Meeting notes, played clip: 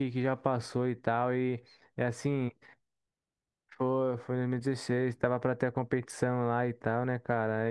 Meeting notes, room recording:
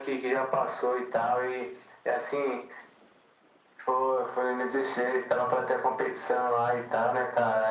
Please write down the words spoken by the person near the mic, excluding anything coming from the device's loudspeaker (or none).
none